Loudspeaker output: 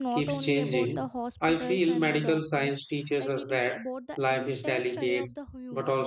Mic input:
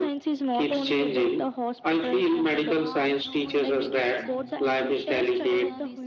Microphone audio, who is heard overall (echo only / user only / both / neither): both